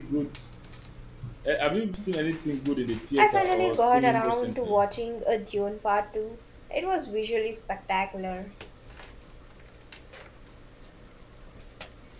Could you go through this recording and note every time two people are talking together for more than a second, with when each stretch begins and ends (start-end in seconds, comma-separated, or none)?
3.2-4.8